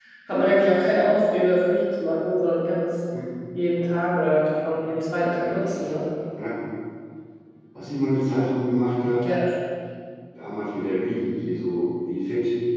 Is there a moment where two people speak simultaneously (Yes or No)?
No